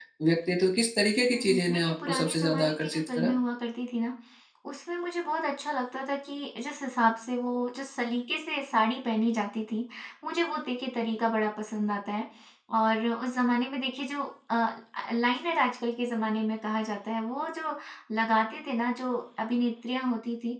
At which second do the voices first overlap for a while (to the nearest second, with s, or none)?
1 s